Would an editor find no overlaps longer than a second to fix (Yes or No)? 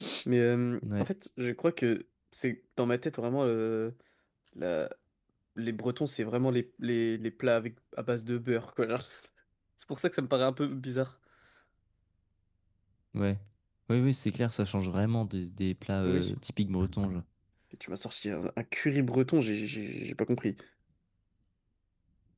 Yes